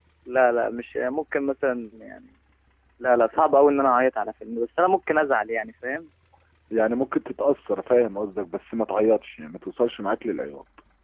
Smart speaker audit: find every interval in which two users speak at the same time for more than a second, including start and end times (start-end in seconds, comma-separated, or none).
none